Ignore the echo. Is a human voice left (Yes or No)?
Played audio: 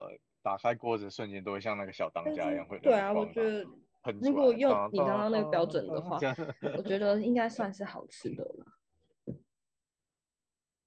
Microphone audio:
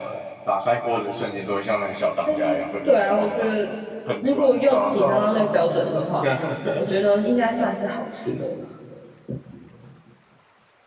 No